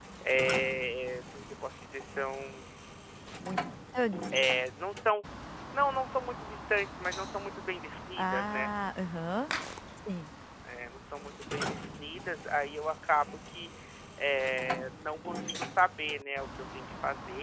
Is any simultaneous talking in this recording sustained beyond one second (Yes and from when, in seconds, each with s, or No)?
No